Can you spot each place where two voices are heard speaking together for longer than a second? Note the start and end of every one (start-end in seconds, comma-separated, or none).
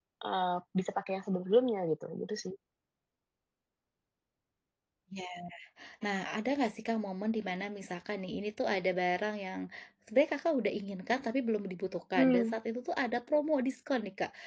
none